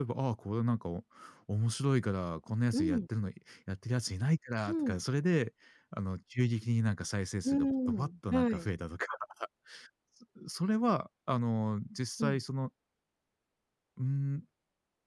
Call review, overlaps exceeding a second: present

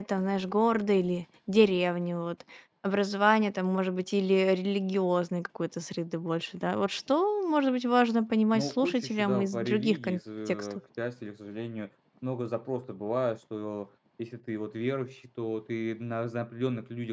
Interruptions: present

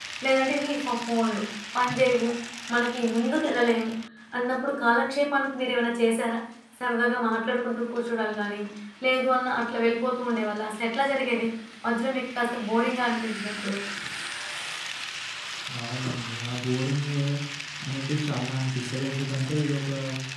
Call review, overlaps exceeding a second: none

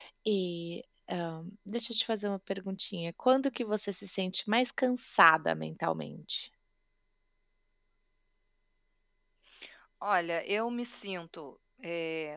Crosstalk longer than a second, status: none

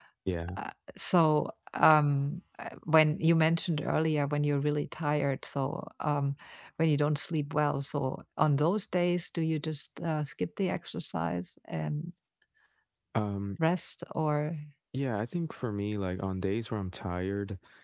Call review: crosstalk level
none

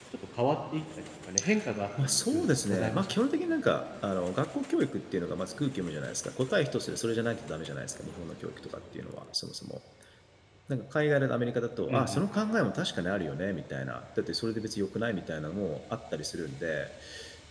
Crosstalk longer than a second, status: present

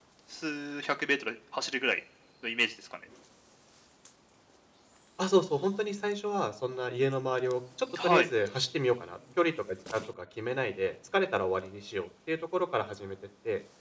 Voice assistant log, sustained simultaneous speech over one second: none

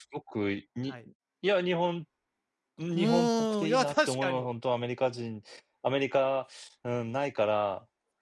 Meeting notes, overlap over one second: present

